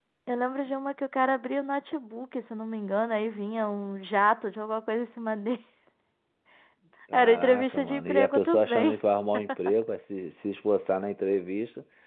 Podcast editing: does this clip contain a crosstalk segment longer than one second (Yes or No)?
Yes